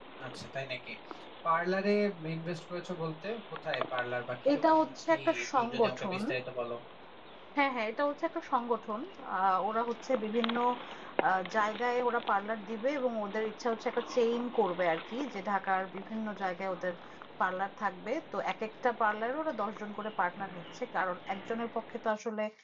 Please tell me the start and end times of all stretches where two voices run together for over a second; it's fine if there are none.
4.5-6.2

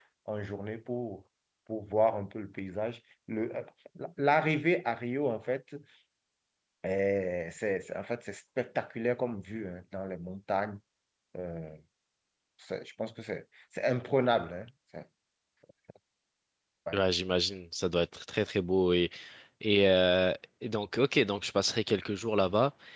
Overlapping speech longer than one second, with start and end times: none

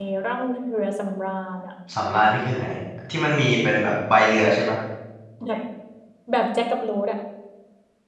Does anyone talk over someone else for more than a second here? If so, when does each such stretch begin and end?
none

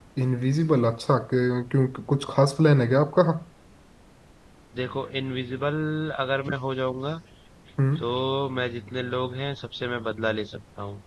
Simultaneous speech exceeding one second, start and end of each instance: none

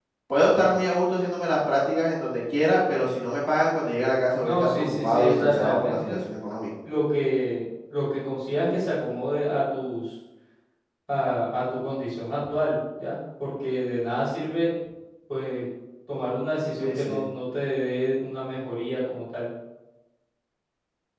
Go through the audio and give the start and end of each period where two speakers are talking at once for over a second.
4.4-6.2

